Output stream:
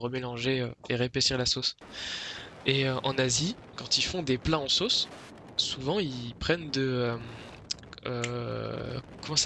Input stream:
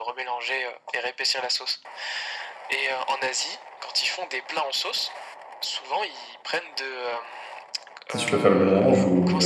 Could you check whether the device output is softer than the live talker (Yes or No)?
Yes